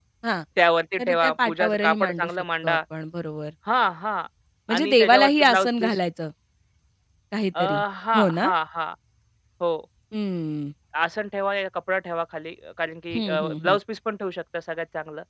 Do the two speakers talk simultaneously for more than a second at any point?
Yes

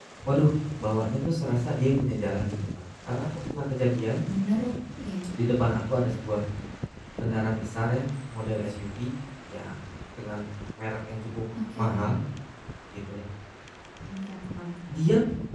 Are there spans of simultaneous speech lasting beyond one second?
No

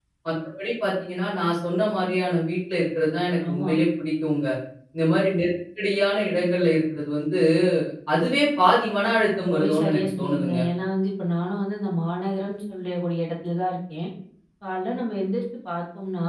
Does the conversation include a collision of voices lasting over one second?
Yes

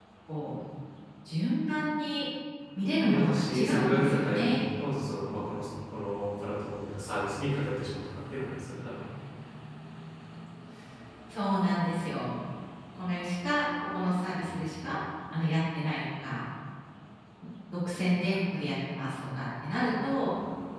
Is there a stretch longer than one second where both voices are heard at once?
Yes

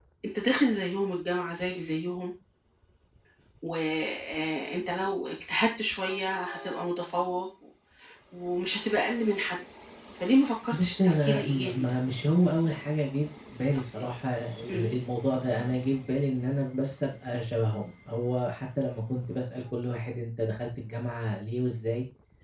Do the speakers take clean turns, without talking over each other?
No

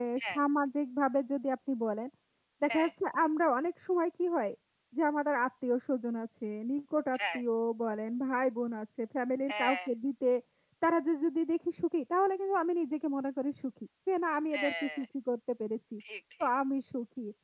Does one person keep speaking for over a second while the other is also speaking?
No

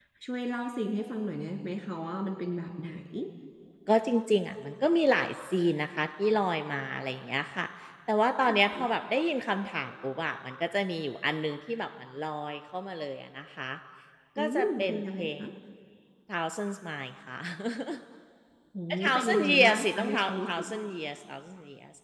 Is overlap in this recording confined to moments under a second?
No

